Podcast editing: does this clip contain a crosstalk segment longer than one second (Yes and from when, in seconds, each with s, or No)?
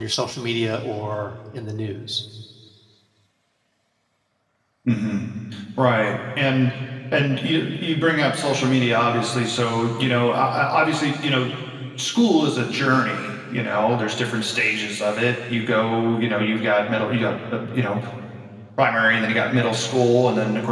No